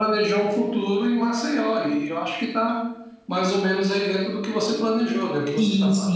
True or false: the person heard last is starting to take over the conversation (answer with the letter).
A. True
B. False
A